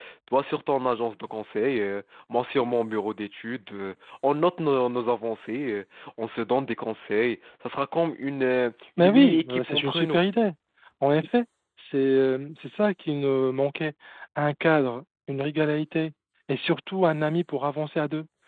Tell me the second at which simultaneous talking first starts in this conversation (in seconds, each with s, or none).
9.0 s